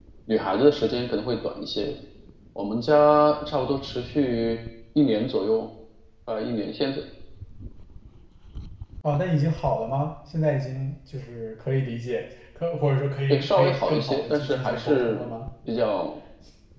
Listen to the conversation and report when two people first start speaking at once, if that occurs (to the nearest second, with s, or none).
13 s